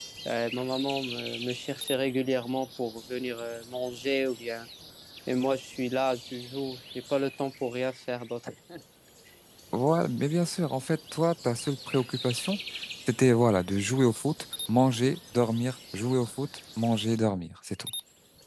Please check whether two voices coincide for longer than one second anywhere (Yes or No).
No